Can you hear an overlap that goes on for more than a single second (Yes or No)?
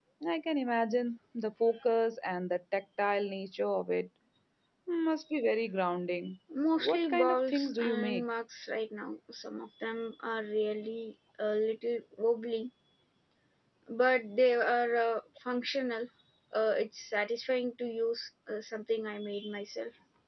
Yes